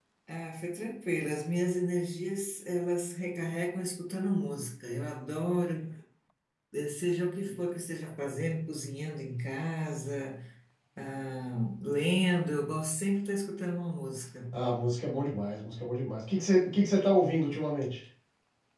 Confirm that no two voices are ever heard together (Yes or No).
Yes